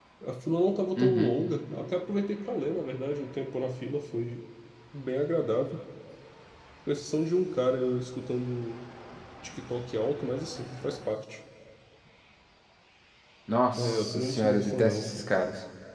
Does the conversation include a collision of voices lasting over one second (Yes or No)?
Yes